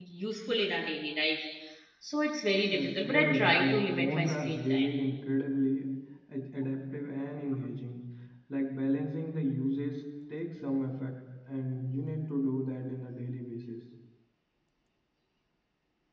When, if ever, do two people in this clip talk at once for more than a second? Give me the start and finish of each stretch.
2.7-4.9

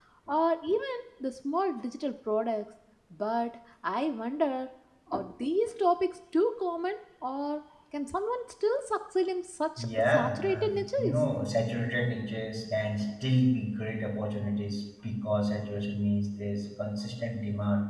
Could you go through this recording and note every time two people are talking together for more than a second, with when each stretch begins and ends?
9.8-11.2

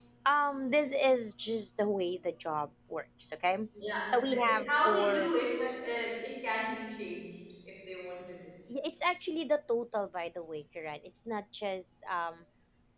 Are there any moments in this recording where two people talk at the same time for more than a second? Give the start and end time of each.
4.0-5.3

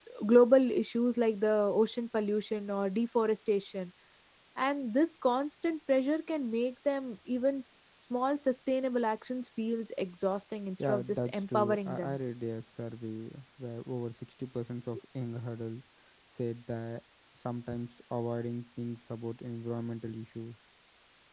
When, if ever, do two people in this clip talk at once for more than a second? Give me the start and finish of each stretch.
10.8-12.2

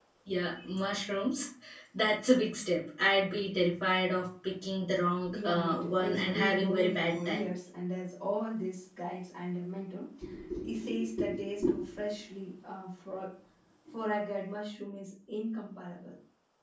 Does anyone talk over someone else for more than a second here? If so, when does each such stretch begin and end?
5.3-7.4

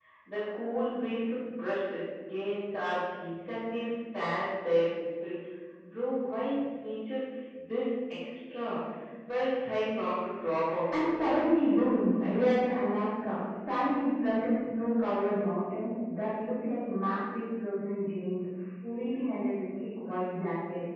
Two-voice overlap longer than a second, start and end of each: 11.0-12.7

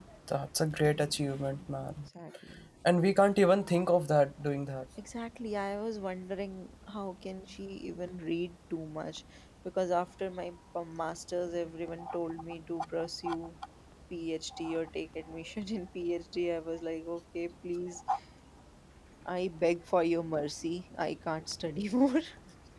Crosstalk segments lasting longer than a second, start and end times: none

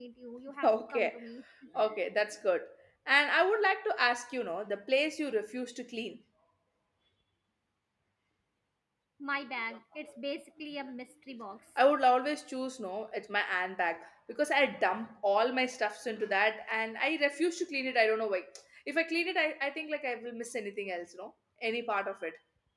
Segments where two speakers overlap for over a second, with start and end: none

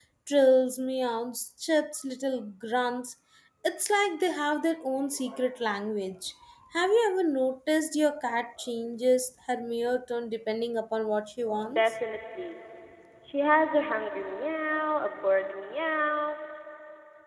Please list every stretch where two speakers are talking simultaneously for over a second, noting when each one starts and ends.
none

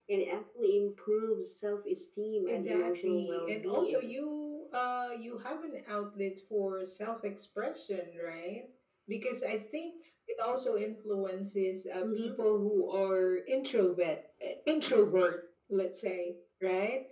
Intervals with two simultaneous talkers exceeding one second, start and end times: 2.5-4.1

